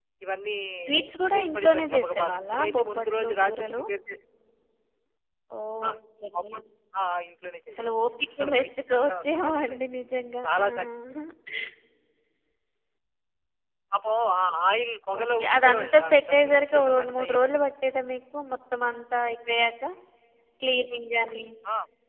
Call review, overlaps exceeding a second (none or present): present